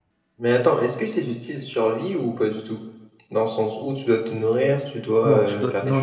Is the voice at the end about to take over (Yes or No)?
Yes